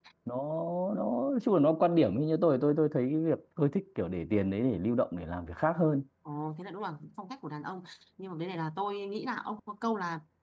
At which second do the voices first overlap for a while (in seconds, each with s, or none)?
none